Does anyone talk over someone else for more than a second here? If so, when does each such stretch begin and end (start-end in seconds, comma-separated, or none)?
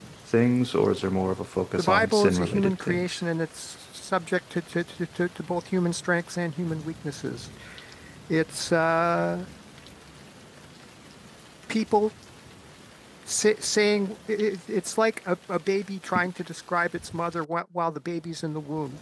1.8-3.2